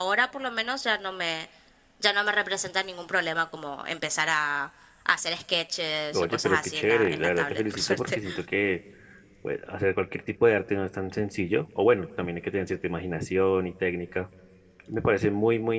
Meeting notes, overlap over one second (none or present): present